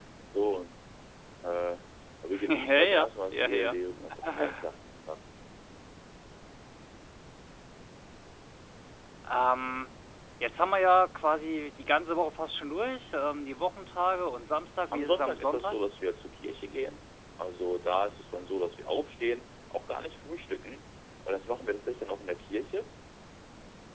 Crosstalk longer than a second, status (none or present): present